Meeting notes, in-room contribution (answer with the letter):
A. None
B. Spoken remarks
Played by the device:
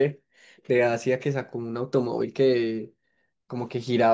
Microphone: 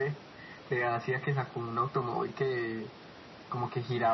A